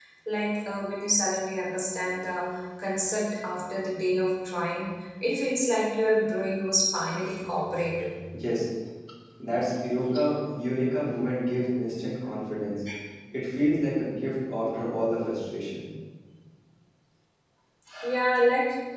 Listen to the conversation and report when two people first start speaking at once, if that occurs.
none

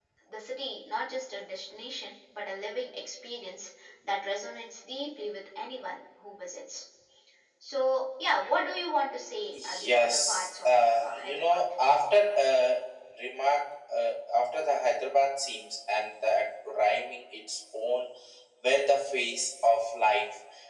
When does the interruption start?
9.5 s

